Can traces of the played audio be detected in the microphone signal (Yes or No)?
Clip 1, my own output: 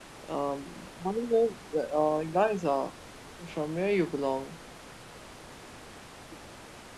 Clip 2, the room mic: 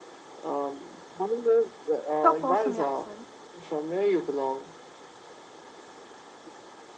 Yes